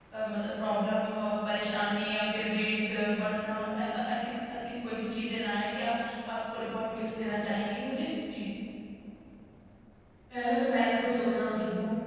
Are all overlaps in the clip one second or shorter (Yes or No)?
Yes